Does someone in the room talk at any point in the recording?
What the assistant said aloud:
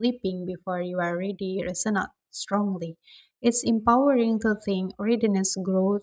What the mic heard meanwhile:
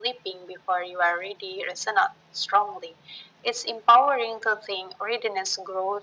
No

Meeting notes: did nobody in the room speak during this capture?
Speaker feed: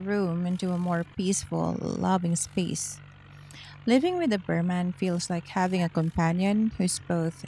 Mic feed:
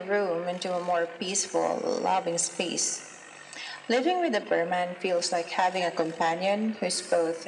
Yes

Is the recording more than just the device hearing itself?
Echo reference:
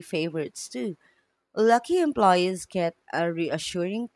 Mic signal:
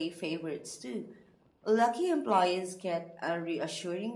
No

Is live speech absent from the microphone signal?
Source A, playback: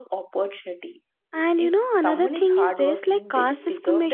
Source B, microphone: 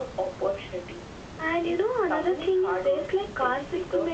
Yes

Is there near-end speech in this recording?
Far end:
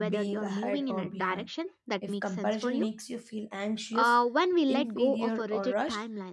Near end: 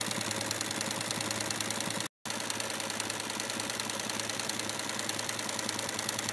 No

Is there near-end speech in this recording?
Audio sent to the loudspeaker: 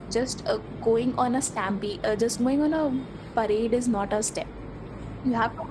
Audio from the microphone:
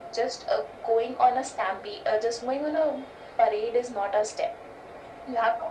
No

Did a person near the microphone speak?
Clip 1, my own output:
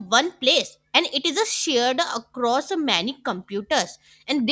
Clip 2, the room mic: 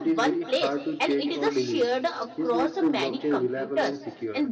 Yes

